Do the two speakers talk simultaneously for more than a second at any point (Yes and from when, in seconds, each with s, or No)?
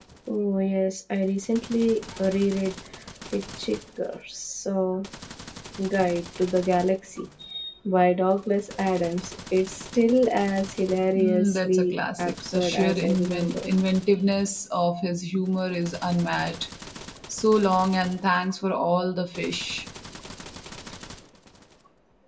Yes, from 11.2 s